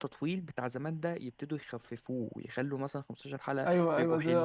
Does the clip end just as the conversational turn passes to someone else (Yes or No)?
Yes